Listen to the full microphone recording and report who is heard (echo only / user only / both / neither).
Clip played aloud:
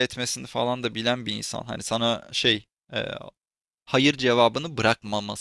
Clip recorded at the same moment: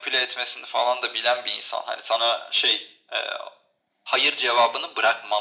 echo only